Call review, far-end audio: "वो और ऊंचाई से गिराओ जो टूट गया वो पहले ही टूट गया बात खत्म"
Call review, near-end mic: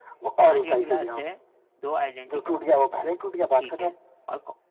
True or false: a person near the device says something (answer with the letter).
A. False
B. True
B